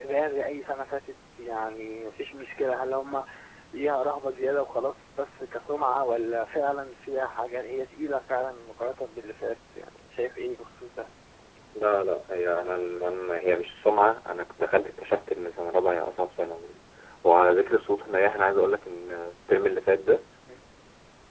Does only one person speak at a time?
Yes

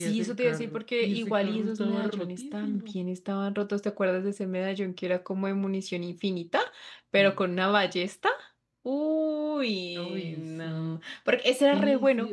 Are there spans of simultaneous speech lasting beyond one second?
Yes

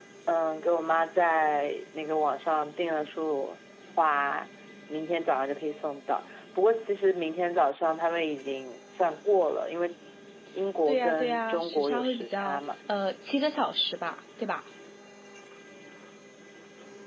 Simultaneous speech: Yes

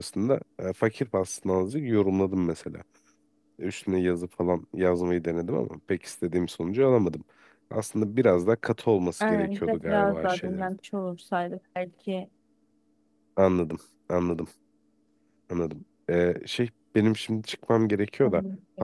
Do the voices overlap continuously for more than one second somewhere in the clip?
Yes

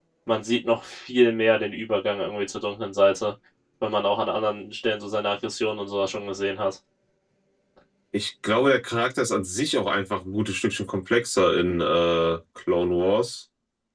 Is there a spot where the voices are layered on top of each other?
No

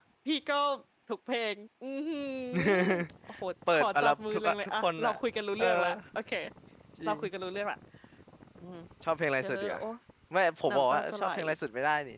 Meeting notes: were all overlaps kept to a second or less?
No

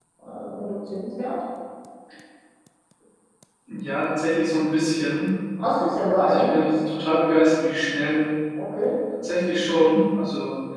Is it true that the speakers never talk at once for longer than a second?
Yes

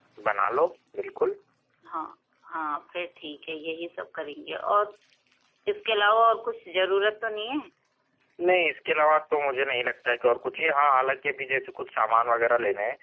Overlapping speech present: No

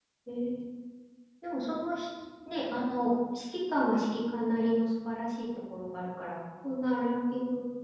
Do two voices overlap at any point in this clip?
No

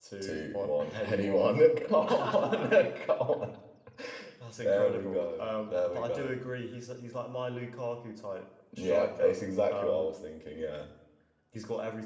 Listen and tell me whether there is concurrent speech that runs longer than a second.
Yes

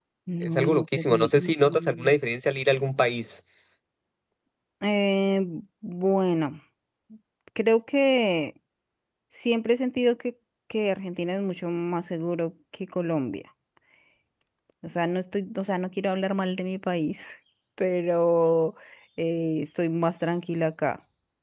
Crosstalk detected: Yes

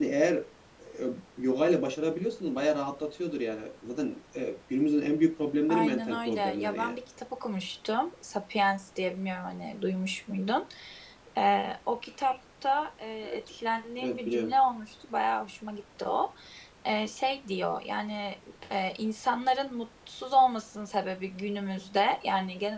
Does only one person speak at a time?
No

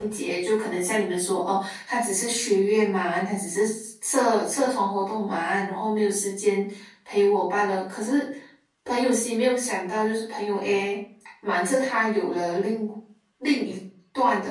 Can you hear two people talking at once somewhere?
No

